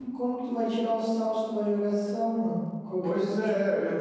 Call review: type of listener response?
taking over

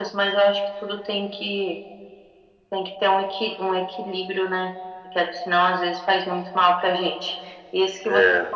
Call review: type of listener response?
listening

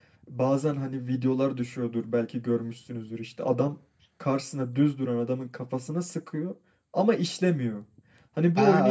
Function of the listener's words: taking over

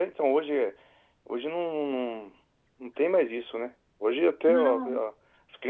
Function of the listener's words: listening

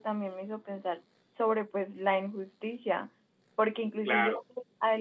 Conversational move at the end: listening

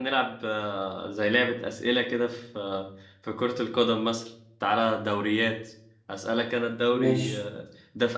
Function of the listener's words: listening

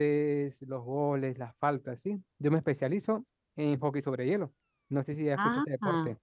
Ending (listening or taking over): taking over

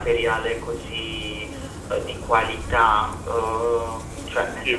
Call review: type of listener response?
listening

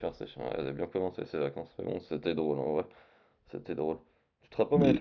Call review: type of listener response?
listening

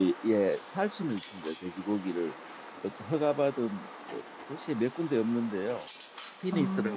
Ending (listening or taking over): listening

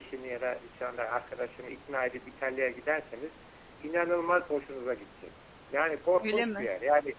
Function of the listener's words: listening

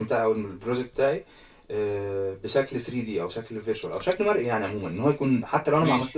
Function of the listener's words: listening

